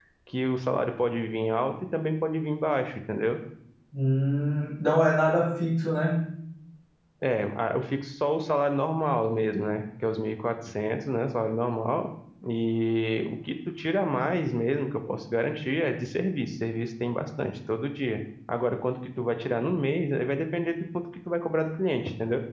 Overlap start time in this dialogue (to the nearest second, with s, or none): none